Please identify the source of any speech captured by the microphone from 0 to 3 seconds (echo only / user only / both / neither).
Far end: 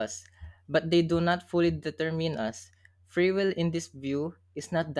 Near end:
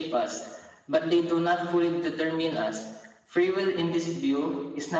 echo only